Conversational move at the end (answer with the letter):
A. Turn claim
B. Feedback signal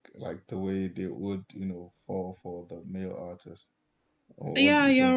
A